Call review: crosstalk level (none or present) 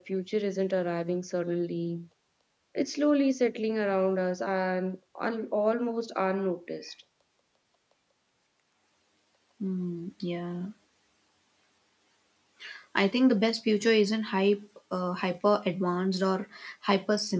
none